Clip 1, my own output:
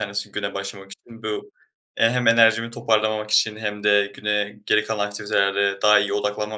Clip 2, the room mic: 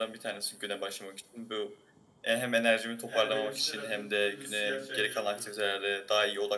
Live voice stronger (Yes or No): No